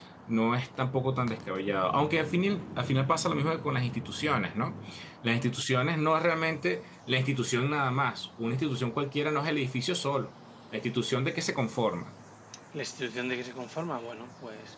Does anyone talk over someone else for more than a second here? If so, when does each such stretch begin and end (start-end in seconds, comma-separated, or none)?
none